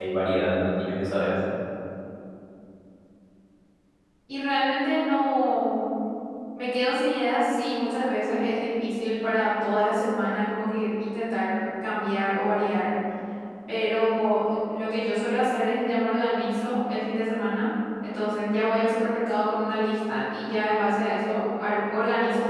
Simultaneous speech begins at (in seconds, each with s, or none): none